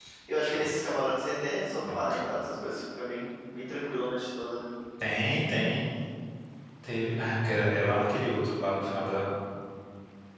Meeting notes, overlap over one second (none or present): none